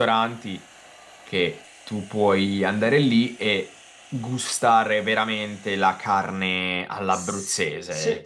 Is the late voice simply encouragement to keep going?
No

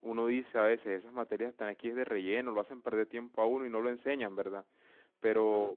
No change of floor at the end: Yes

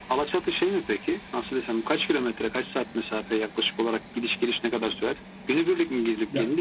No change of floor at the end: Yes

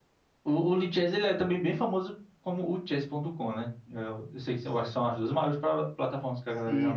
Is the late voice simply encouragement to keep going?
No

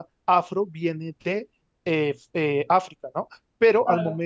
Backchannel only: No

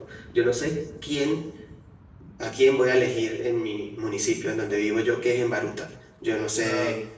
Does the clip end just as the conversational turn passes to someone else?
No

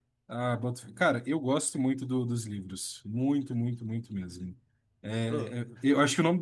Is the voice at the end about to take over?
No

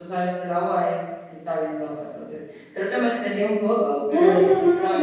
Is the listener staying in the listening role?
No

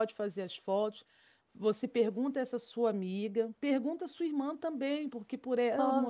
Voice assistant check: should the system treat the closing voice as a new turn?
No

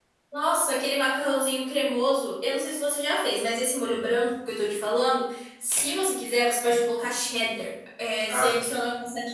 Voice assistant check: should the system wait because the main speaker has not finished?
Yes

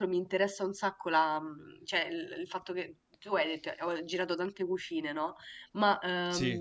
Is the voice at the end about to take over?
No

